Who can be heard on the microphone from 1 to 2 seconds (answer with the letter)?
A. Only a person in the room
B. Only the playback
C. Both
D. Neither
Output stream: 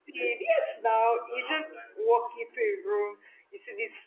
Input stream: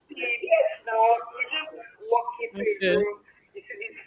B